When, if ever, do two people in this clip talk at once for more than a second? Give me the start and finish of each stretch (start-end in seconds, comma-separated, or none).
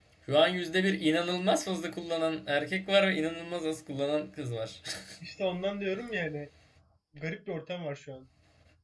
none